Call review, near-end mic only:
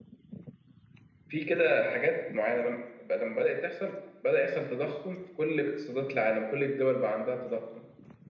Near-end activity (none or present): present